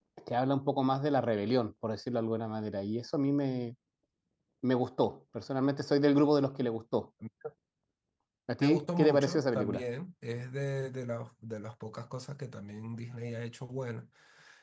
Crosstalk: present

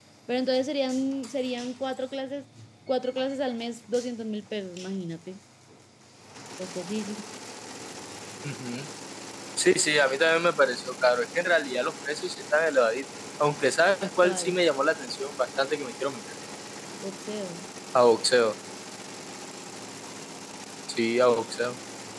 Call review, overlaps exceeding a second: none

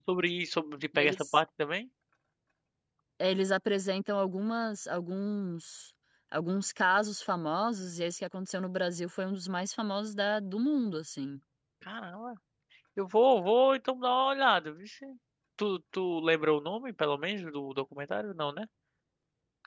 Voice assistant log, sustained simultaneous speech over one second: none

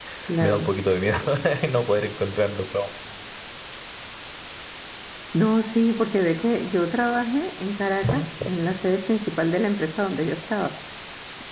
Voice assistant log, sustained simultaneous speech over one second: none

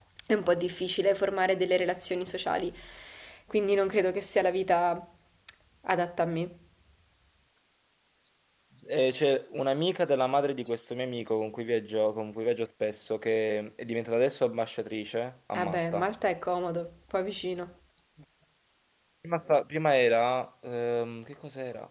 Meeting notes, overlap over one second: none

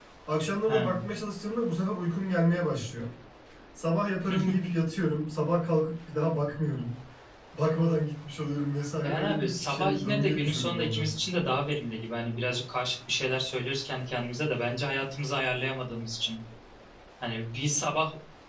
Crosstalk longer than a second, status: present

